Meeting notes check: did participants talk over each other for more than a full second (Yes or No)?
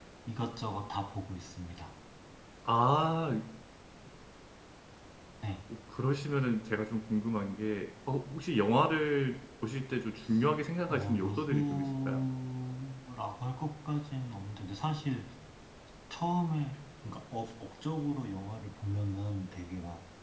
Yes